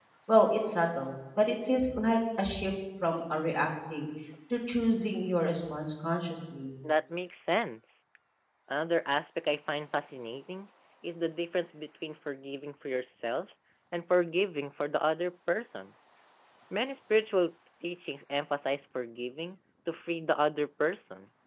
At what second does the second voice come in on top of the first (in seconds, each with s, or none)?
none